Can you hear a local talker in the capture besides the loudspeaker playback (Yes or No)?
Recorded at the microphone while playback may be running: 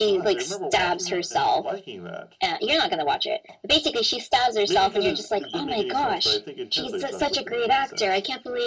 No